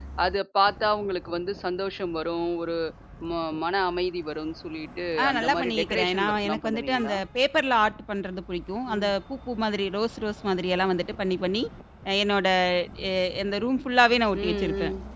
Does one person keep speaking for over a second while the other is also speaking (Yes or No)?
Yes